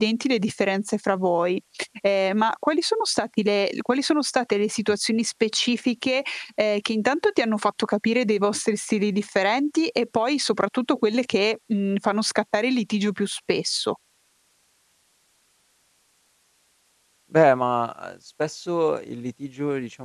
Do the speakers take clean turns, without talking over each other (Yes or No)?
Yes